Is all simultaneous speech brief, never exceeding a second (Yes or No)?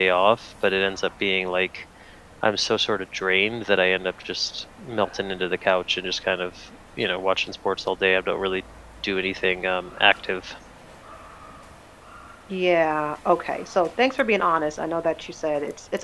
Yes